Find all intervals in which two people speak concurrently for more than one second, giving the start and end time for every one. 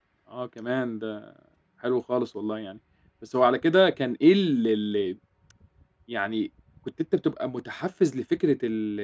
none

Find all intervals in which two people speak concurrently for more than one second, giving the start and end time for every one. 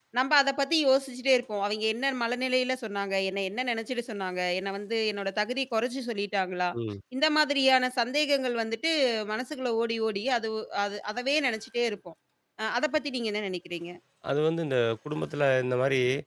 none

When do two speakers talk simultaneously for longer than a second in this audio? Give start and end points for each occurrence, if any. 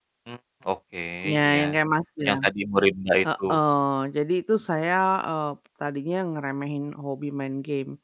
none

